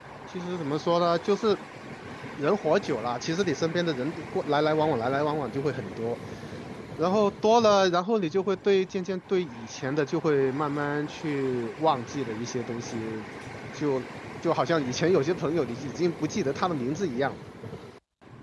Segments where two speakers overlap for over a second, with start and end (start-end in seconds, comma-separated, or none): none